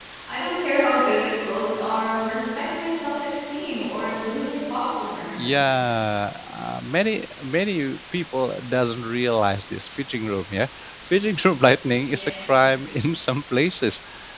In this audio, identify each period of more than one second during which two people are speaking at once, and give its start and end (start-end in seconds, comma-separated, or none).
none